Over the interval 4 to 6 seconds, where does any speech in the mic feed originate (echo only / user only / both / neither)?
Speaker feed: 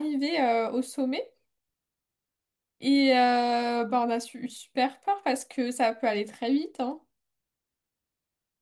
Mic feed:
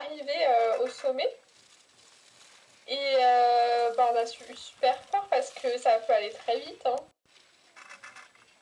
echo only